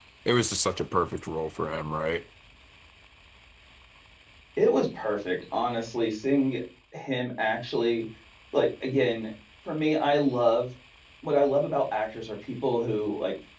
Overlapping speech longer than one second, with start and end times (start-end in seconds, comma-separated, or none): none